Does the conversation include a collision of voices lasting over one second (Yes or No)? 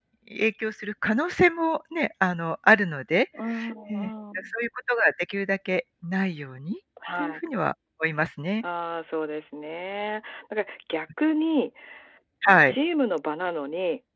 No